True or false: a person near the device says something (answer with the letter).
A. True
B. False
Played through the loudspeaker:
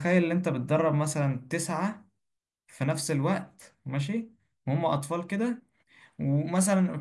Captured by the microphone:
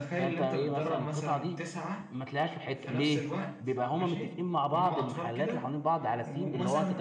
A